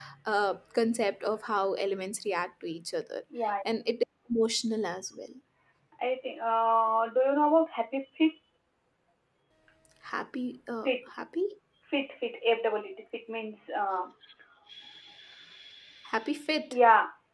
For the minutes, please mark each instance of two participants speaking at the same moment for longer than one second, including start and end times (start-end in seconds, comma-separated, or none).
none